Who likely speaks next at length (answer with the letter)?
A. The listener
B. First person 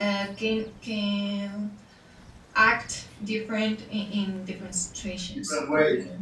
B